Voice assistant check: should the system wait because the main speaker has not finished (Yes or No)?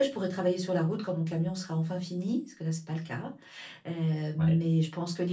Yes